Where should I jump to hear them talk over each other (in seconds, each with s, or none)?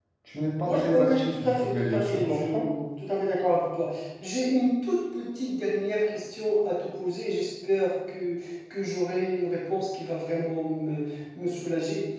0.7 s